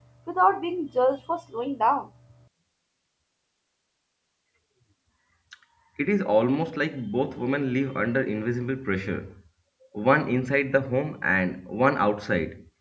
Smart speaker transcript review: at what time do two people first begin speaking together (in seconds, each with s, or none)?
none